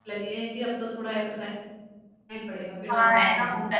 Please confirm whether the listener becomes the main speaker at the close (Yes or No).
Yes